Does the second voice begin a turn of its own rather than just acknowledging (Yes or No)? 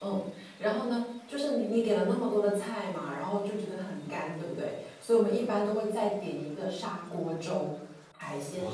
Yes